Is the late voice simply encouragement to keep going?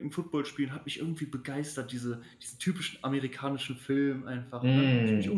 No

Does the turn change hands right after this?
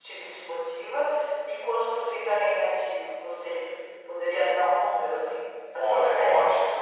Yes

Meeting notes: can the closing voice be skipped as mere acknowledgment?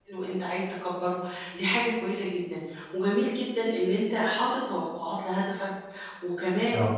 Yes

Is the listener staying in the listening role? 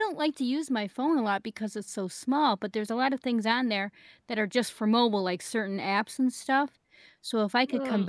Yes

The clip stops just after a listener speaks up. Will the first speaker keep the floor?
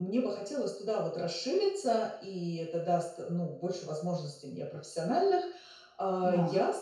Yes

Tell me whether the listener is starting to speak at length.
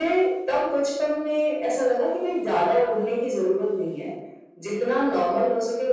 No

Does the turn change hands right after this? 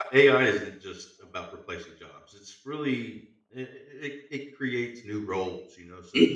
Yes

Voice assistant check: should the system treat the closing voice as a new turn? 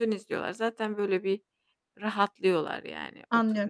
Yes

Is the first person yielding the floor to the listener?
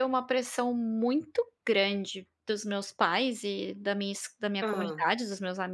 No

